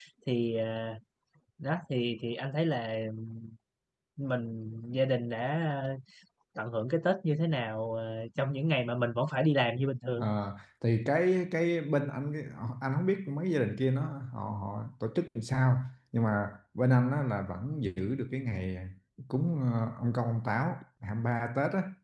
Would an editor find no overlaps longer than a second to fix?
Yes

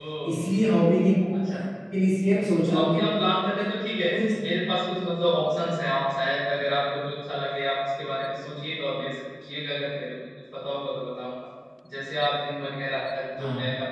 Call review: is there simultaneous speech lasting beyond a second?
No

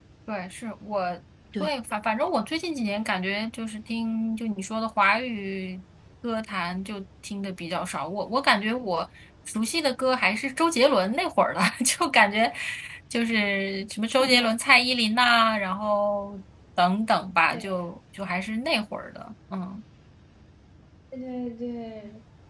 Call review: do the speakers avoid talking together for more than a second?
Yes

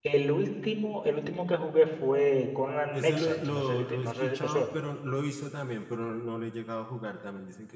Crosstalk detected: Yes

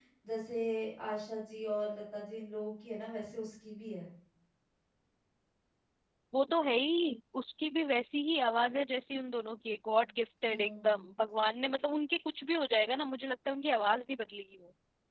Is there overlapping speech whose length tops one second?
No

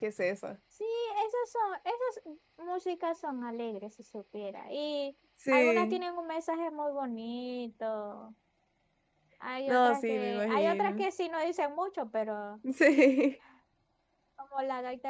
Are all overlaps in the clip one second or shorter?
No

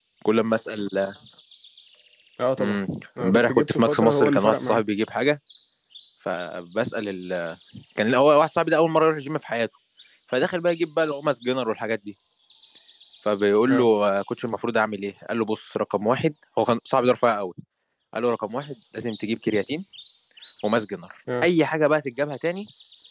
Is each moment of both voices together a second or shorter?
No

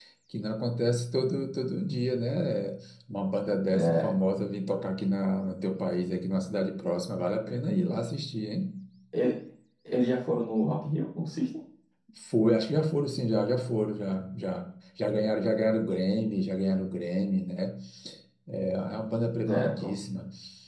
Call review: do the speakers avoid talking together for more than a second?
Yes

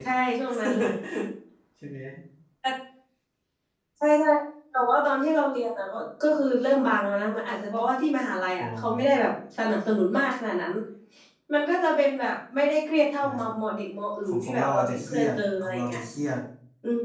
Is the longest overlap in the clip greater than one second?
Yes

